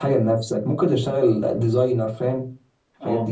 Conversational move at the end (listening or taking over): taking over